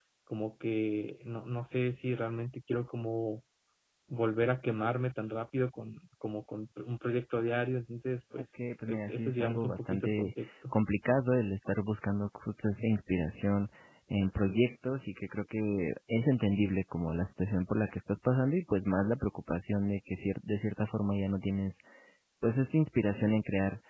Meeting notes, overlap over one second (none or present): present